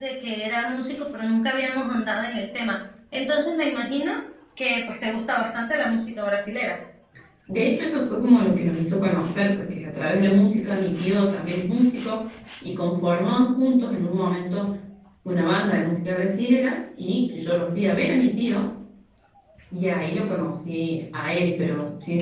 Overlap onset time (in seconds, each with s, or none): none